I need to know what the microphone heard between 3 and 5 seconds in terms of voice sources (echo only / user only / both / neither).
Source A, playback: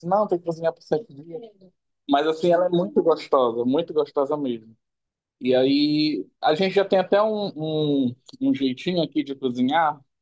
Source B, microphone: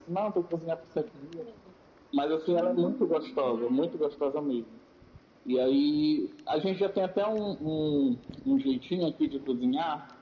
both